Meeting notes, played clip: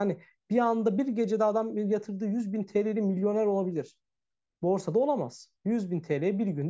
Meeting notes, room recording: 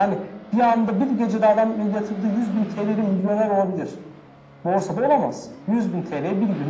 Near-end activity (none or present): none